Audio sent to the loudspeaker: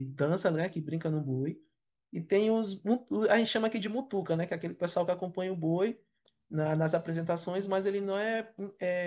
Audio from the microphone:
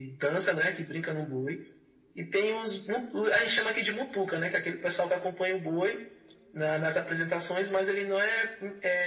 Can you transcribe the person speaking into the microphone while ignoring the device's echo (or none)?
none